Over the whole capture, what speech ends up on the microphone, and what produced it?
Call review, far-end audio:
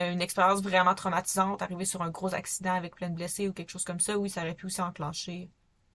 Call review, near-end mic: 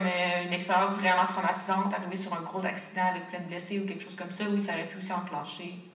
echo only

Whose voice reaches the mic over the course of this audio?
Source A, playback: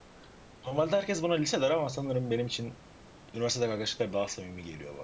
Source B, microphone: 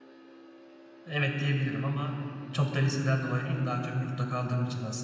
user only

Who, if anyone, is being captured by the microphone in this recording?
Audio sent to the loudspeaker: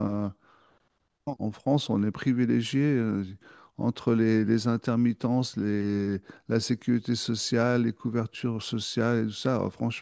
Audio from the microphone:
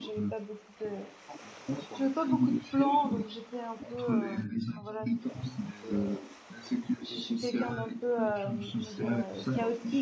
both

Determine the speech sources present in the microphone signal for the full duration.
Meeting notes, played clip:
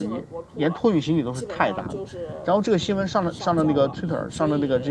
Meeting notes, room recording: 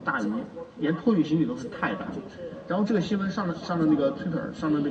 echo only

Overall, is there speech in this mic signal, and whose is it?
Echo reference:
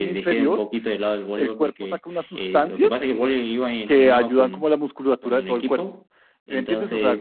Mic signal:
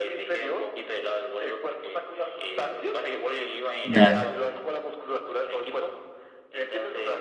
both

